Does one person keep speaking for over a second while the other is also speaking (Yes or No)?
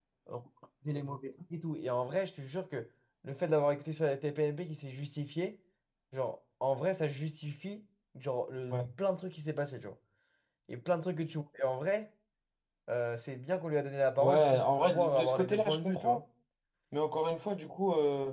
Yes